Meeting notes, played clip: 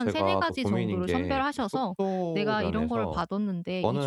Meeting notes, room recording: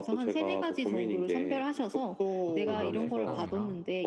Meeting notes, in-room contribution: present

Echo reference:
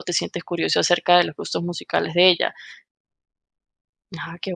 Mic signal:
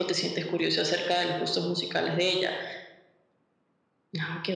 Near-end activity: none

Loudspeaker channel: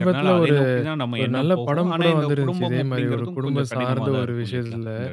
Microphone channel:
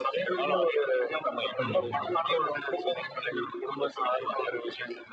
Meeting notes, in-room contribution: present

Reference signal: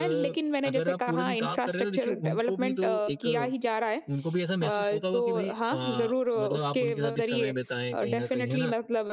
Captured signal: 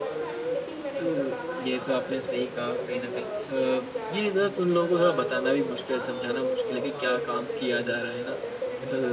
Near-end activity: present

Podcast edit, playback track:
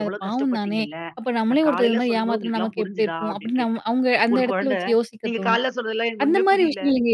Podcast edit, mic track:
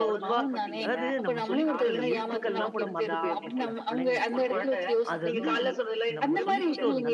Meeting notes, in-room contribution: present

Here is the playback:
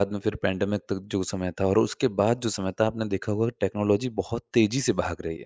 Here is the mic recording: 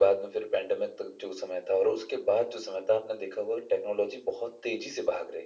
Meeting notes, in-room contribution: none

